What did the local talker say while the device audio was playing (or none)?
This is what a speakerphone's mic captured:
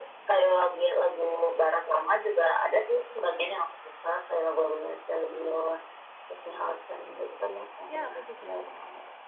Ya, aku suka.